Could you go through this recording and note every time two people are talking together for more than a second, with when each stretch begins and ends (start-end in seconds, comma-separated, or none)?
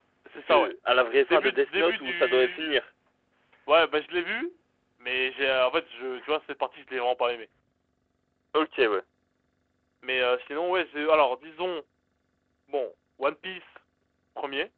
1.2-2.8